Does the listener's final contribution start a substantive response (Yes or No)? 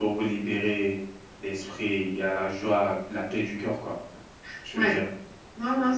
Yes